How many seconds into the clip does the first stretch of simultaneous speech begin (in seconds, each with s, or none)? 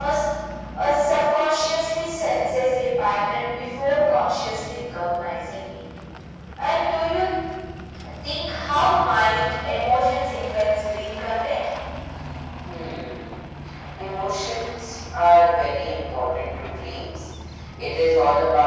none